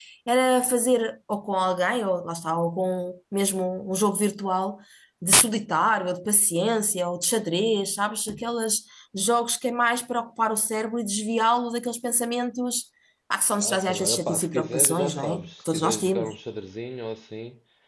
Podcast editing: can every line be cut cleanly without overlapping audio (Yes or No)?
No